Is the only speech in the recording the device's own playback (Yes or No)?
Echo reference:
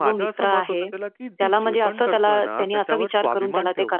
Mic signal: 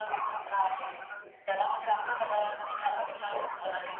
Yes